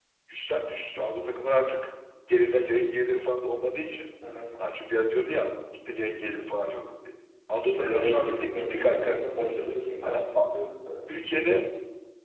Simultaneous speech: Yes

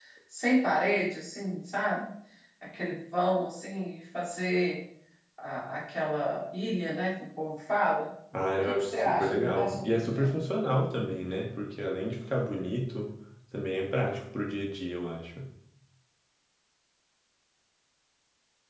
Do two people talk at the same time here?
Yes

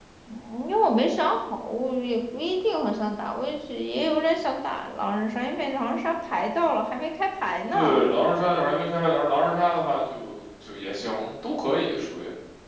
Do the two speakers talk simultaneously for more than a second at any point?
No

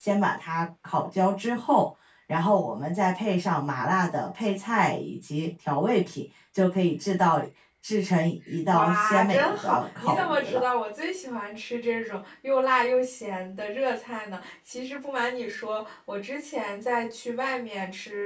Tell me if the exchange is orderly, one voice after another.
No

